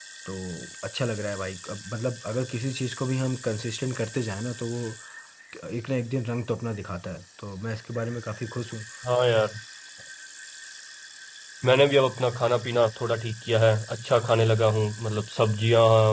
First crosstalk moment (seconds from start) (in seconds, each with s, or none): none